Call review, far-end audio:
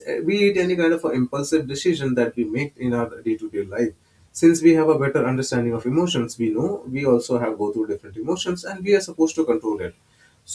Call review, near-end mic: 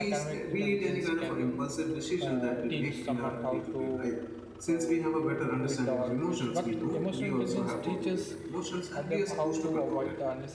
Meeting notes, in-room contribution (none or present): present